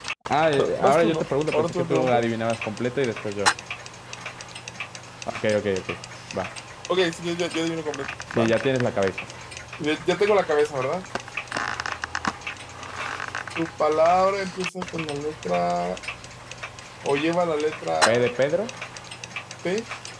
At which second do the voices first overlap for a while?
0.6 s

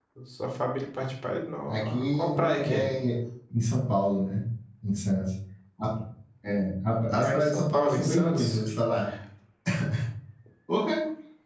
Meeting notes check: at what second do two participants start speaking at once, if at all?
1.7 s

